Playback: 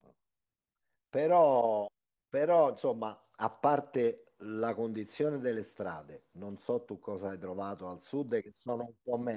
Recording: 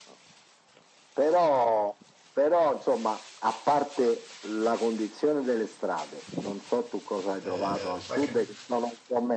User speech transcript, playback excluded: eh, sai che

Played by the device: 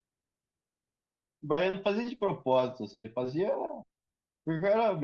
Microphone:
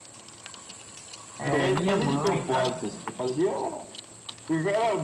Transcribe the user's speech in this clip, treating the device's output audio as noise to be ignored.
É, minha mãe, cara,

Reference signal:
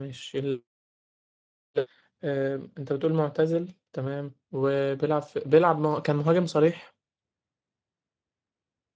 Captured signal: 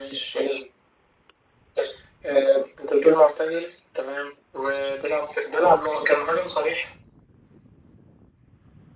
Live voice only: none

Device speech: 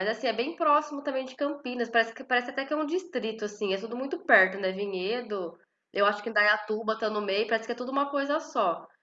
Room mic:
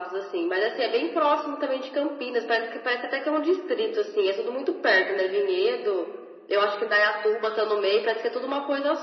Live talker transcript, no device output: none

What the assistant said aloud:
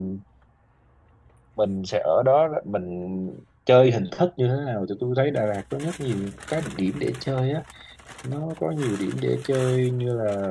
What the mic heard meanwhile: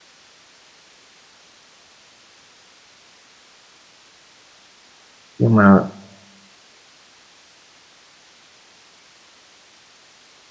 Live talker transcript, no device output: nhưng mà

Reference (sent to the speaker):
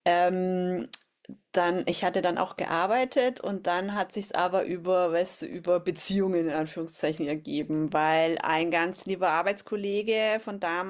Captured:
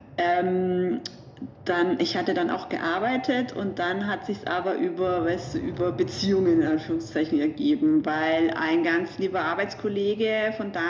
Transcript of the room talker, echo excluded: none

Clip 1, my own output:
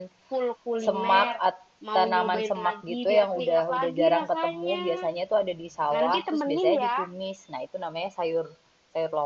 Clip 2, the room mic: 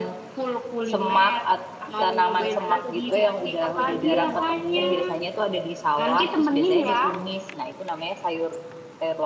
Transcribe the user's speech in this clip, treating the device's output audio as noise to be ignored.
akhir bulan tujuanku itu ke Jogja mau full

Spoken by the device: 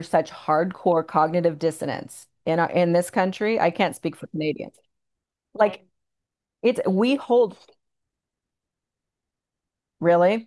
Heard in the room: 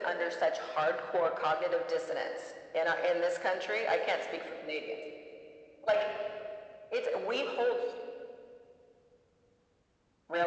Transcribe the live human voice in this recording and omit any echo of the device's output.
none

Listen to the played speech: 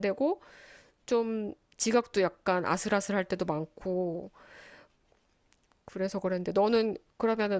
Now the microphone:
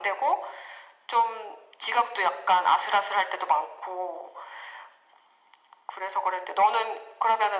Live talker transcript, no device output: none

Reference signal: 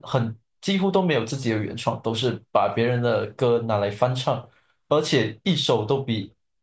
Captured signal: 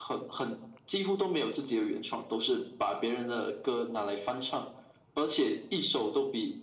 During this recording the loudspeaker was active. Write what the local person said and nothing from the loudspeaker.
none

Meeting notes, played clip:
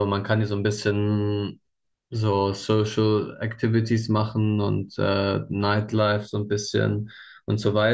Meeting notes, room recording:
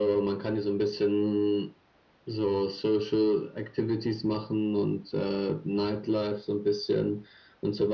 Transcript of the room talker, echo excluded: none

